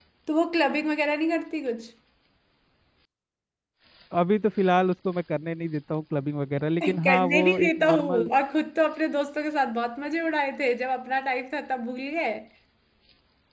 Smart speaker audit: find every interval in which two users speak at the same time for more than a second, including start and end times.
6.8-8.3

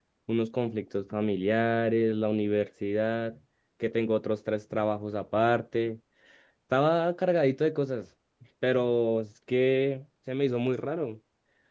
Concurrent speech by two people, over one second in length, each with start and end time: none

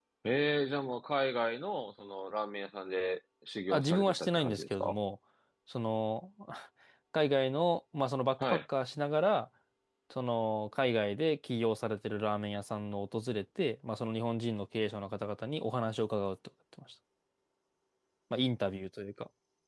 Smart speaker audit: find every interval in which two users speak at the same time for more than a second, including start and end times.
3.7-5.0

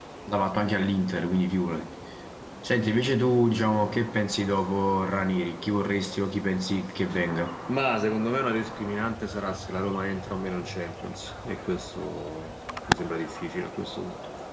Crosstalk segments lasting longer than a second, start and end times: none

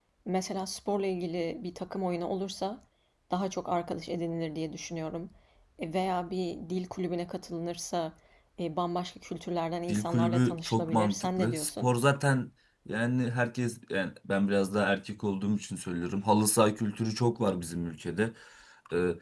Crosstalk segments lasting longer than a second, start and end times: 9.9-11.9

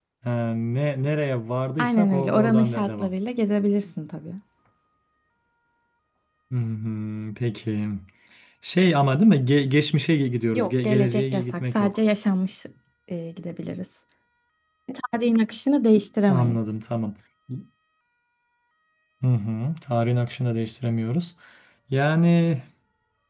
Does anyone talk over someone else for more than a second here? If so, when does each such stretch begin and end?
1.8-3.1, 10.5-12.0

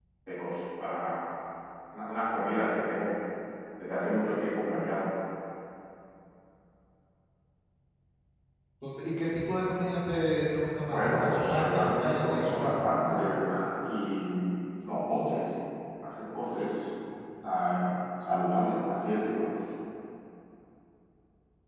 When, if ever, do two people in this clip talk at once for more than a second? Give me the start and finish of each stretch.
10.9-12.6

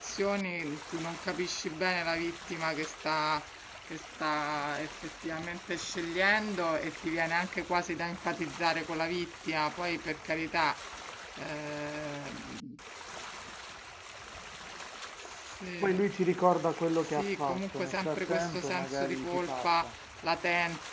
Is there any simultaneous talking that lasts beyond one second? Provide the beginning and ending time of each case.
17.0-19.9

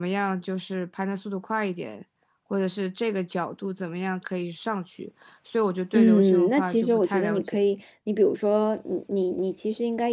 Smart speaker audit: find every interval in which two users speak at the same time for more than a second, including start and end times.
5.9-7.6

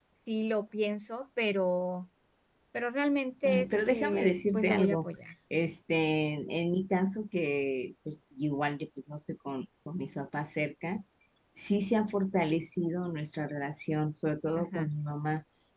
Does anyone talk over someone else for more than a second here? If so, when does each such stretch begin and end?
3.4-5.1

